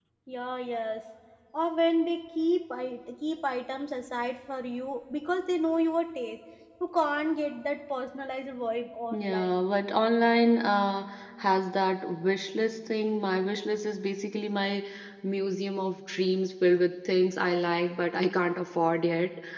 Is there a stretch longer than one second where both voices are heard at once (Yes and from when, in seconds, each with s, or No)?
No